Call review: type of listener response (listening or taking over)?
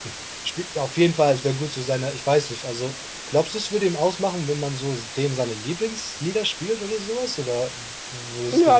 taking over